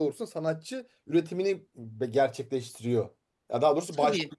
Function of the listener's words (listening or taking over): listening